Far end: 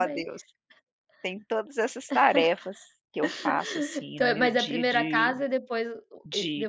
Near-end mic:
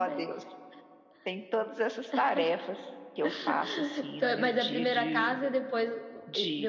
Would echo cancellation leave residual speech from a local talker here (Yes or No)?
No